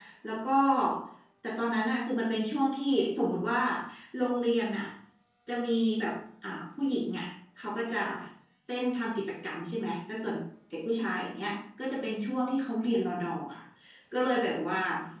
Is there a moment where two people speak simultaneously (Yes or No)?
No